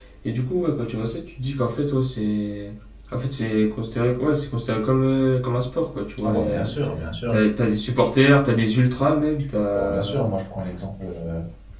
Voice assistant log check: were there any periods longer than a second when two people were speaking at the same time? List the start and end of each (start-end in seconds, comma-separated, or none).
none